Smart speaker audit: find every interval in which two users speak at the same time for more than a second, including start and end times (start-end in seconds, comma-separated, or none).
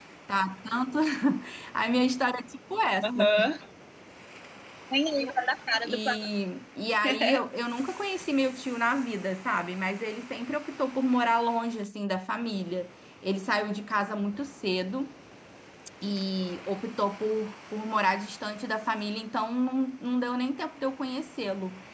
none